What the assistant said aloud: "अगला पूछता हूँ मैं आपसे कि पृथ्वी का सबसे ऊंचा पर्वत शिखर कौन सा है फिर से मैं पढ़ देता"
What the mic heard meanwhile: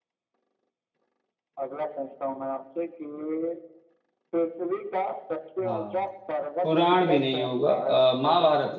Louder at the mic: user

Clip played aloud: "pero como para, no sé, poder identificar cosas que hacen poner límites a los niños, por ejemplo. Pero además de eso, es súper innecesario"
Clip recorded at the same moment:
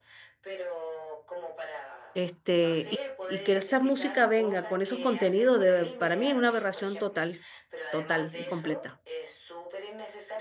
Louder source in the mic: user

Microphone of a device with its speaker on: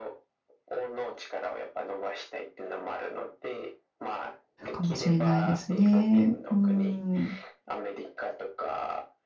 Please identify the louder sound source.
user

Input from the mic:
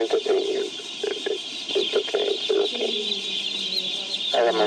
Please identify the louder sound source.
echo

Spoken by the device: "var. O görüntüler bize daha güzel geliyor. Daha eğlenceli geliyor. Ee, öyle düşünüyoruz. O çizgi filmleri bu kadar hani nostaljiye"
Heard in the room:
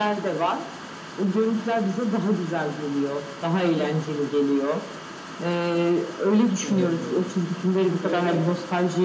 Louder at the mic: echo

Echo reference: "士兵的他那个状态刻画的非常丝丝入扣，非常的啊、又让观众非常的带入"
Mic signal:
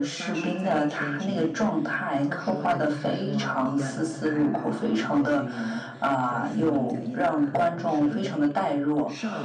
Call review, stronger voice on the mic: echo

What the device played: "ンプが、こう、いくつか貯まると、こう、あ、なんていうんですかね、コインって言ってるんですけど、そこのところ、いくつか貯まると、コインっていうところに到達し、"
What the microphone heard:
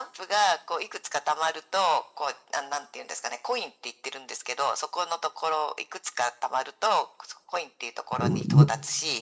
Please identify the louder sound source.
user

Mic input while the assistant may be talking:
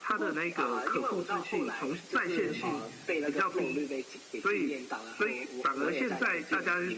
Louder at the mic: echo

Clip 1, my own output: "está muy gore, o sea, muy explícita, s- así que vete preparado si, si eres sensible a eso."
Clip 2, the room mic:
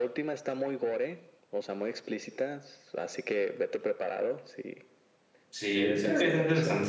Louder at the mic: user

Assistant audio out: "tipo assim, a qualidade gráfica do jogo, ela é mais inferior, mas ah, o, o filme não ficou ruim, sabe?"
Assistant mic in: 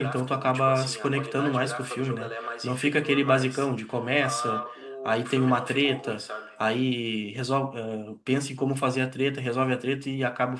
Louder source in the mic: user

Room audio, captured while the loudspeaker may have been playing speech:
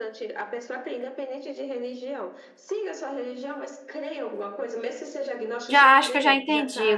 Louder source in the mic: user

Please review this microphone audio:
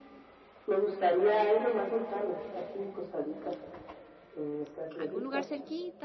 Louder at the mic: echo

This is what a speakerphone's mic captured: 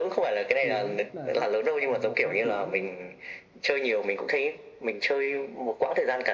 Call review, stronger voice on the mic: echo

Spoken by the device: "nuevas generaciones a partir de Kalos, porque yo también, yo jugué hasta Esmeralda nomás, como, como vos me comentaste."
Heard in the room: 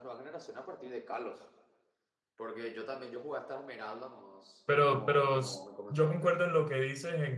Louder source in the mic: user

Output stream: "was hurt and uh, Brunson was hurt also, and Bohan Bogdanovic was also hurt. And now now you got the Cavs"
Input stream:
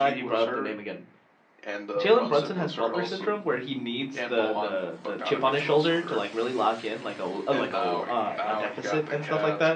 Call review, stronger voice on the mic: user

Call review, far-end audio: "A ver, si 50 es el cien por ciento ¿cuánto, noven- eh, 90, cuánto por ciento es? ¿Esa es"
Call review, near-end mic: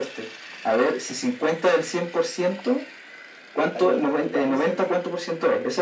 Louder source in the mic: echo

